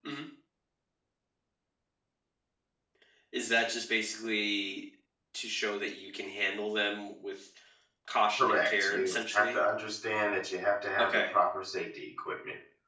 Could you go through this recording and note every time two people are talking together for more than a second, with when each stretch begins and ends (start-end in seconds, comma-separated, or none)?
8.4-9.6